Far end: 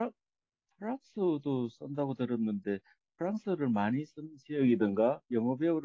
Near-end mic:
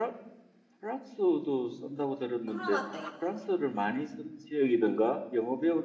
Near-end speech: present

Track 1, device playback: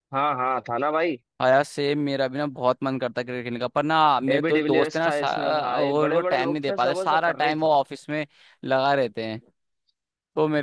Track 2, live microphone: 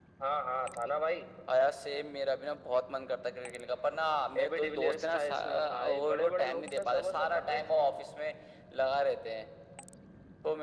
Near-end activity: none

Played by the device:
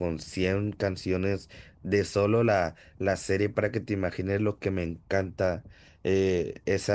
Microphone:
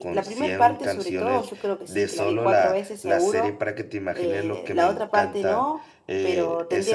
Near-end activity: present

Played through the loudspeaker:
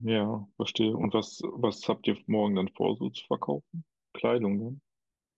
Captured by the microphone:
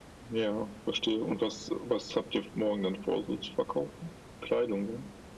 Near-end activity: none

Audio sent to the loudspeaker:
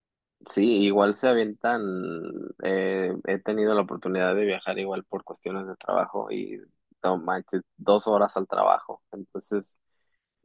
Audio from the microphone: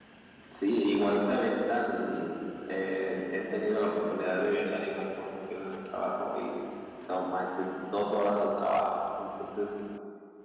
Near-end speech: none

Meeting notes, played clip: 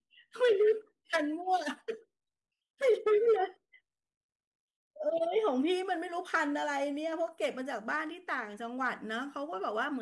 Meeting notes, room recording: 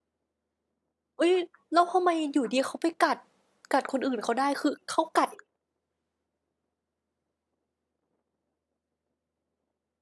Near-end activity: present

